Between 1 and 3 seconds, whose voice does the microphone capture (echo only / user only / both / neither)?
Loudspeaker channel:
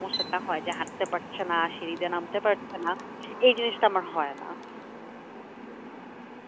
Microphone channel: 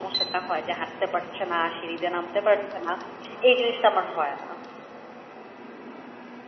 echo only